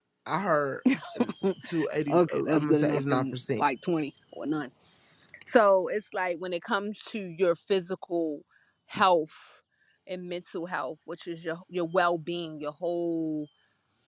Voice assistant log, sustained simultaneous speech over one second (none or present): present